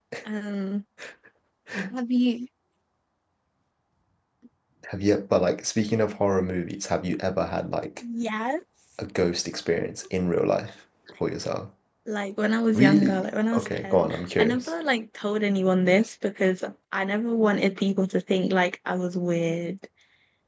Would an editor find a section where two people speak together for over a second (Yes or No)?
Yes